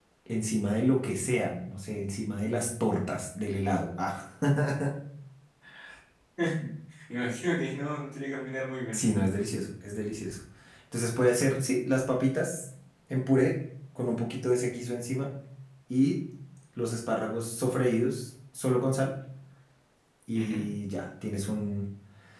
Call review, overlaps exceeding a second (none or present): none